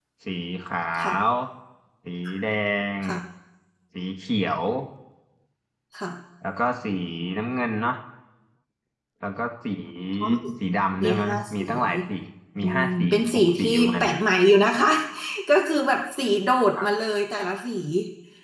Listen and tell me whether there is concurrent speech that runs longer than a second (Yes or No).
Yes